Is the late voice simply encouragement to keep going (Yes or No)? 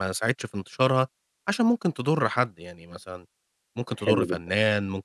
Yes